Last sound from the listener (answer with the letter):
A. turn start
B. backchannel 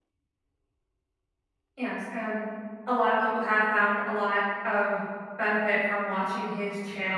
B